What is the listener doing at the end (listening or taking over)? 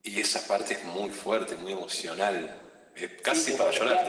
taking over